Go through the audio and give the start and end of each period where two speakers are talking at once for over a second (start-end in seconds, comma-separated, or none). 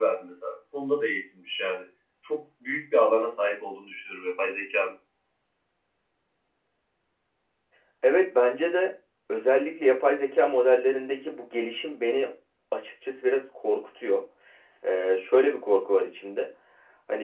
none